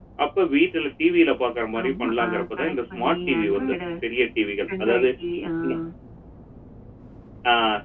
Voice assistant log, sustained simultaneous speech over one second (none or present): present